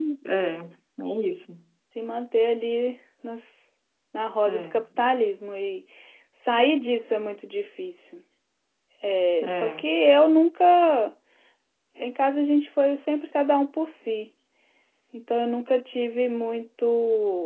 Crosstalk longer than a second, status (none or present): none